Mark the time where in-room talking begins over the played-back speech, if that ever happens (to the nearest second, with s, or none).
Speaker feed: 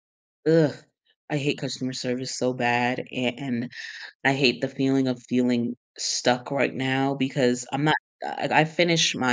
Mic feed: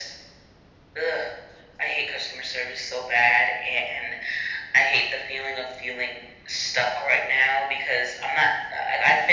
none